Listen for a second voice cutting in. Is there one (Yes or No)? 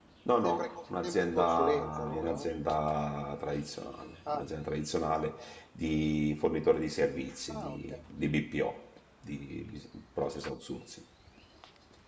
Yes